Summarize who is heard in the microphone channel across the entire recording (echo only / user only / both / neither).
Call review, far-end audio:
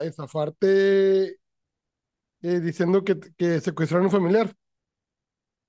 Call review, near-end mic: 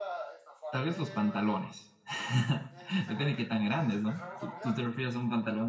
both